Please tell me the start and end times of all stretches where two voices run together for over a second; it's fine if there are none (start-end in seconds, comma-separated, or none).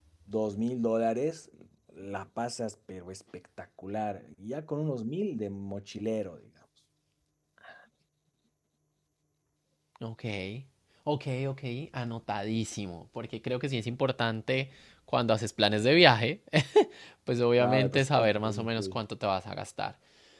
17.6-19.0